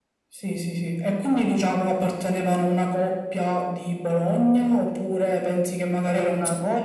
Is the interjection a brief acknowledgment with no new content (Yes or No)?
No